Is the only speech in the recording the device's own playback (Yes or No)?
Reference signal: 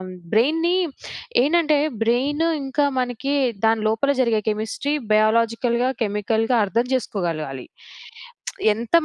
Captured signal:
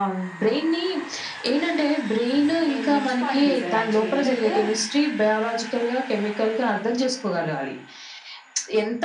No